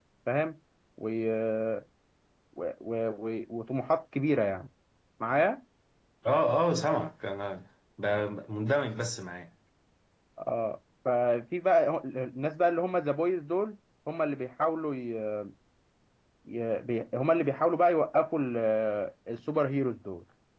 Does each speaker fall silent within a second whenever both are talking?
Yes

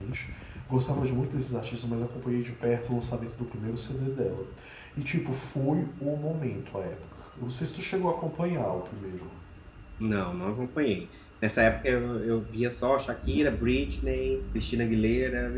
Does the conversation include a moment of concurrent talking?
No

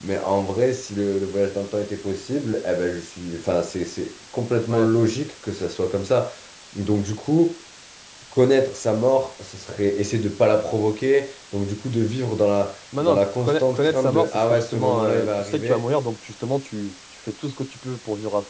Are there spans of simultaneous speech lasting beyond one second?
Yes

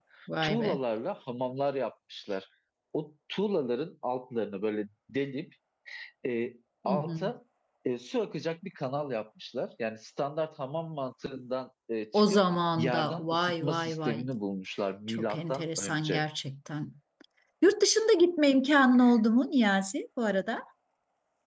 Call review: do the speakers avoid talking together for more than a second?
No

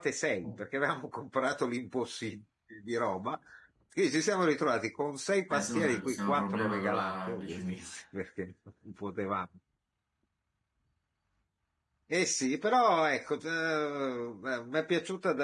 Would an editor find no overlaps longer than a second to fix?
No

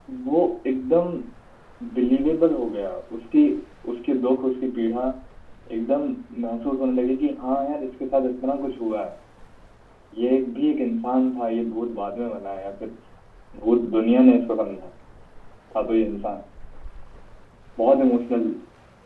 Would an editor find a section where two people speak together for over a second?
No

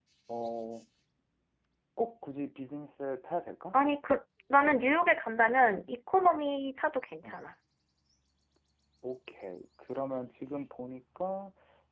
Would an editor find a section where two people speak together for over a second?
No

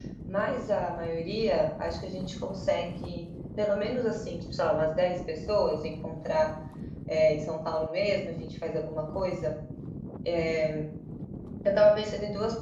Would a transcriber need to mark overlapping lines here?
No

